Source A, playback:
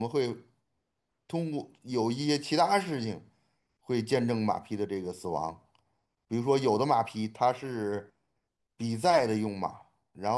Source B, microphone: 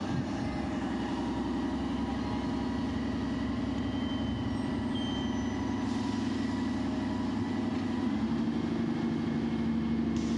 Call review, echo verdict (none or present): none